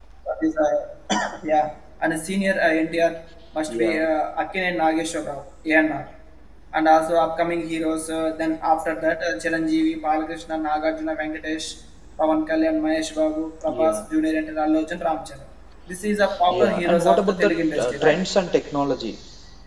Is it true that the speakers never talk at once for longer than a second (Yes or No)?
No